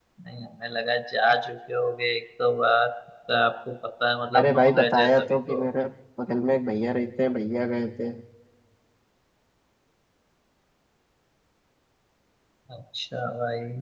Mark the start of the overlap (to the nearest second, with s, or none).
4 s